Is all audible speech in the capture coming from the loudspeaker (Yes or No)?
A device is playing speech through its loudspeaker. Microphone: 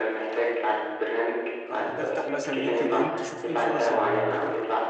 No